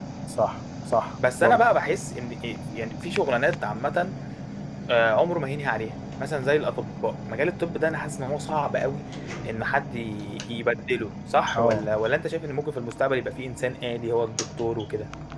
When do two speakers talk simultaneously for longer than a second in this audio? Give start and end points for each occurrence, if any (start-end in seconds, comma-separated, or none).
none